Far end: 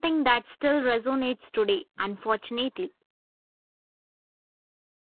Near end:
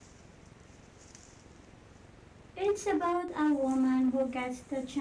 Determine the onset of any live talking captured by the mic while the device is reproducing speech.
2.6 s

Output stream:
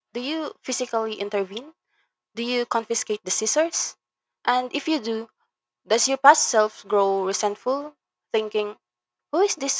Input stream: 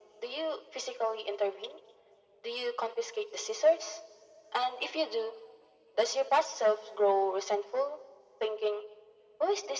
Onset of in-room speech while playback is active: none

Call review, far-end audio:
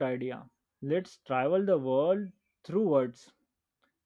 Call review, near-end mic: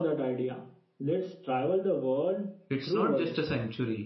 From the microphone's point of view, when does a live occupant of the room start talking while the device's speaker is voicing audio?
2.7 s

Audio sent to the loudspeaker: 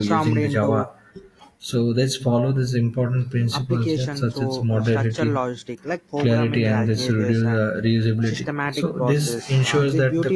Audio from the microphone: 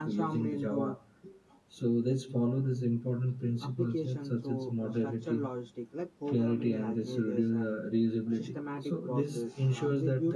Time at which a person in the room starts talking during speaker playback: none

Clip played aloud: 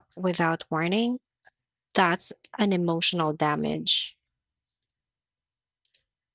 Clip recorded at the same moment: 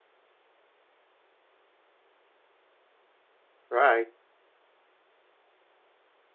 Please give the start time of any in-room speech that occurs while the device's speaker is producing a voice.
3.7 s

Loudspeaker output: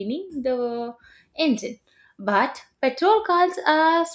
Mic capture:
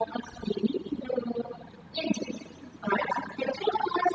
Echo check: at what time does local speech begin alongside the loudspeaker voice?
none

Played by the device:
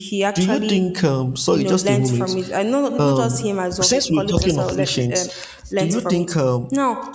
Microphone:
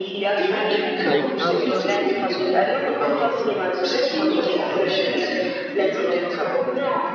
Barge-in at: 1.0 s

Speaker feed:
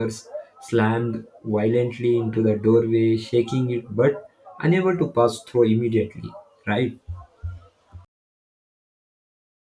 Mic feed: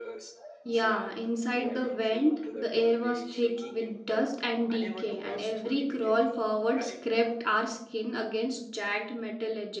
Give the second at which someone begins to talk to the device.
0.6 s

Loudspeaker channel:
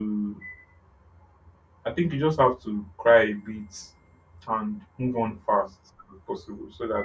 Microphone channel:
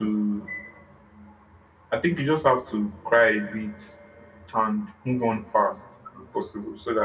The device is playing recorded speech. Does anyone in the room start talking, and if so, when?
none

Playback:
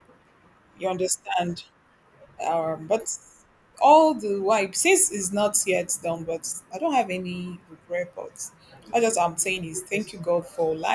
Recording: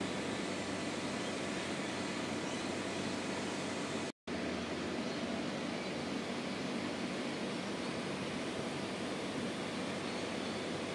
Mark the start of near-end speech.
none

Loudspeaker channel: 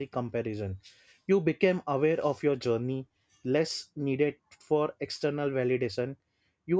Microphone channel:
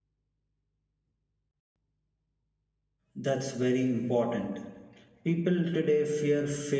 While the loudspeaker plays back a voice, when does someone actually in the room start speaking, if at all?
3.1 s

